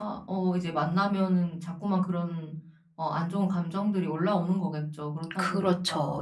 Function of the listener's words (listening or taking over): taking over